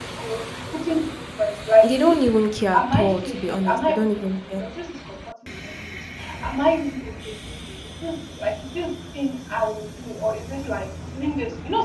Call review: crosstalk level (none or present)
present